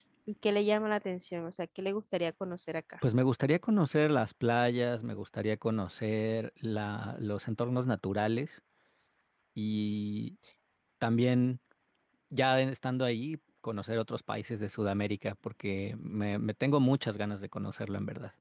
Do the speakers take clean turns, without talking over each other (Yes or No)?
Yes